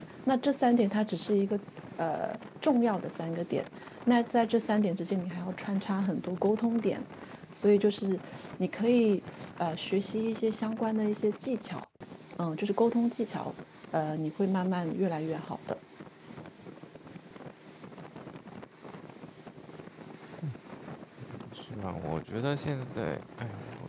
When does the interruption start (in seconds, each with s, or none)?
none